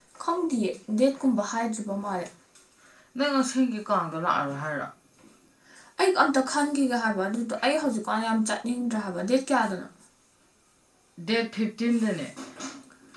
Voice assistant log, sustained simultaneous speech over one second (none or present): none